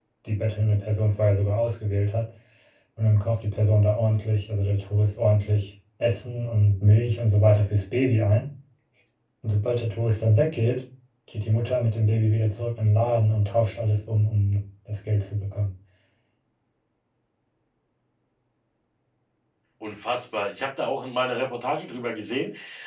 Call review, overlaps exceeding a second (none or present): none